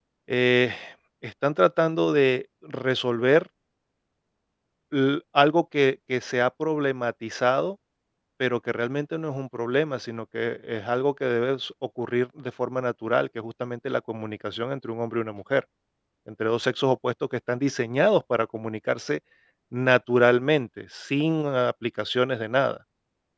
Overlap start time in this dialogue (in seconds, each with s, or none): none